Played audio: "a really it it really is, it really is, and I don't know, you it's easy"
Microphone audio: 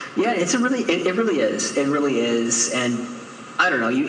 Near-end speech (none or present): none